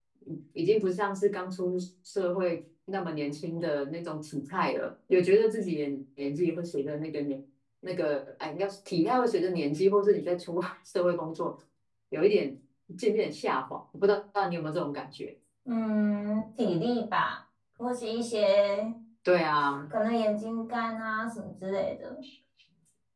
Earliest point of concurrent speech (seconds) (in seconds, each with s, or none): none